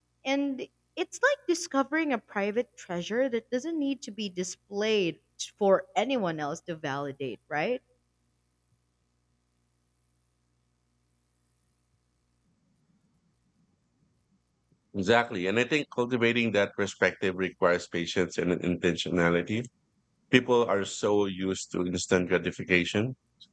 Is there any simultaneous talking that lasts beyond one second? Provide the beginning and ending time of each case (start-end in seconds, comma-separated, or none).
none